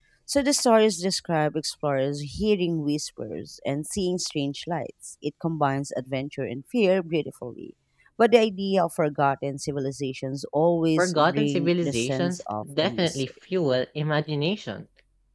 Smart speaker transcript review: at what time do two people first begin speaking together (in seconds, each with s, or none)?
11.0 s